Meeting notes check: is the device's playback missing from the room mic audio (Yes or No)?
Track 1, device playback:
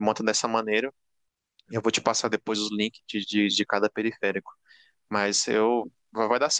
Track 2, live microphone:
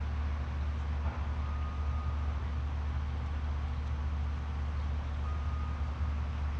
Yes